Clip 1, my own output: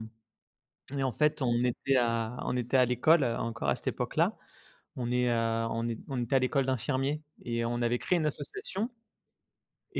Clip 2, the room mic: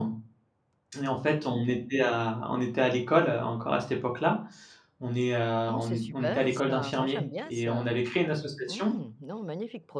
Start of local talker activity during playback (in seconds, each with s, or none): 5.7 s